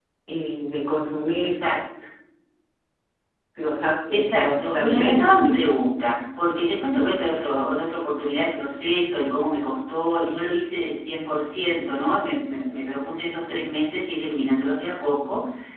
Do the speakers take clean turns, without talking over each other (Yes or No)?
No